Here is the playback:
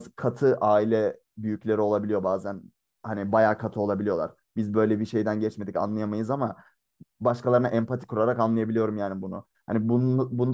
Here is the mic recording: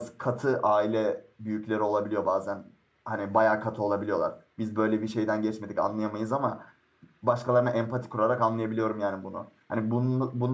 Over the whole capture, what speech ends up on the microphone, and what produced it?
echo only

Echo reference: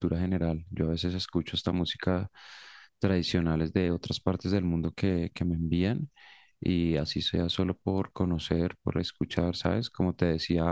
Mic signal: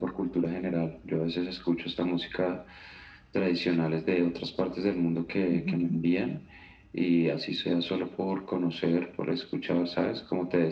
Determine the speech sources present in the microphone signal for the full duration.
both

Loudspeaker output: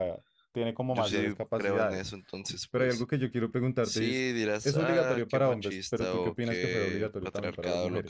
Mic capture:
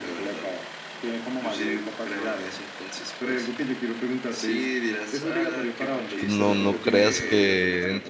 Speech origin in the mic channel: both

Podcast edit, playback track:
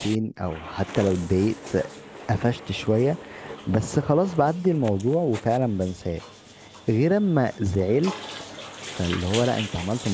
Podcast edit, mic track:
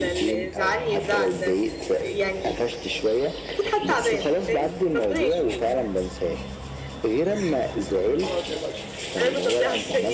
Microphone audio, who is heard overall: both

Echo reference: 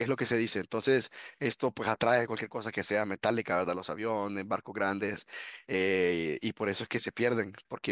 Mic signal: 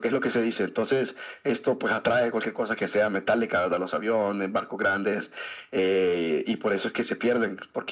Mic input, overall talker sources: echo only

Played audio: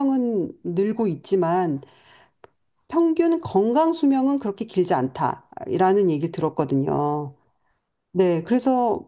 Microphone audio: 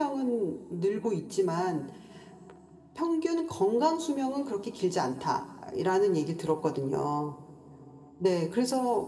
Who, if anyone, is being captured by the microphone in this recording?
echo only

